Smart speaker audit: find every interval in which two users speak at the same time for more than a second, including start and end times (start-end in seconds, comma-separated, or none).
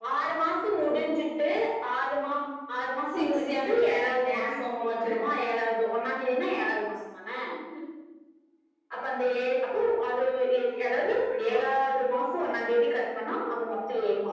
3.1-5.1